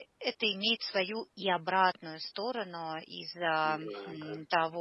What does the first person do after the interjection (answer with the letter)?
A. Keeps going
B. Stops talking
A